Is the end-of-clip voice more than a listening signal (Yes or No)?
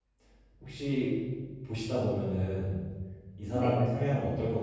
No